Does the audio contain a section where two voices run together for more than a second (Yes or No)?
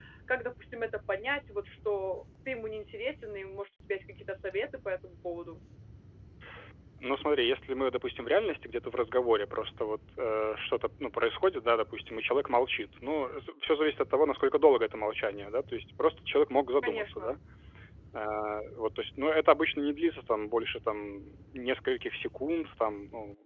No